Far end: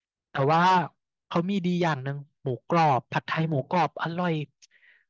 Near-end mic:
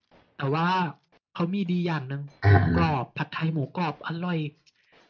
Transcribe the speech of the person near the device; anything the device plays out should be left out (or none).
อ่า